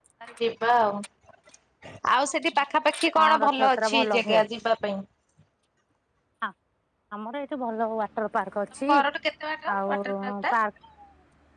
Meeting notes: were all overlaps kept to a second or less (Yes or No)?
No